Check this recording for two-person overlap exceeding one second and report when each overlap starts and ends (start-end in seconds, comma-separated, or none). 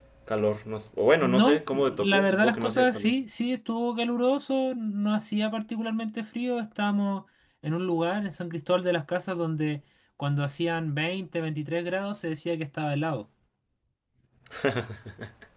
1.2-3.1